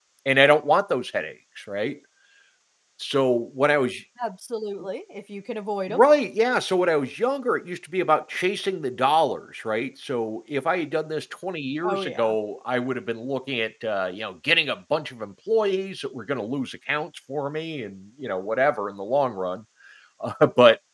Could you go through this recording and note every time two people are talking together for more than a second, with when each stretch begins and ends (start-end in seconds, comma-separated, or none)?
none